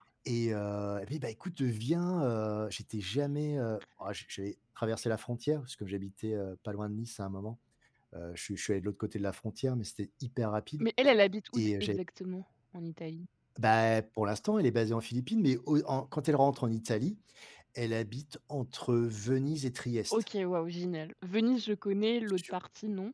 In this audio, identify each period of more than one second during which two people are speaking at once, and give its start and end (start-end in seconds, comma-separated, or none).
none